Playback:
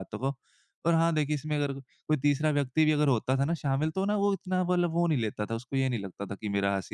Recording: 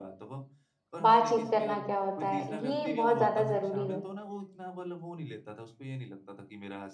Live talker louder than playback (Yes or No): Yes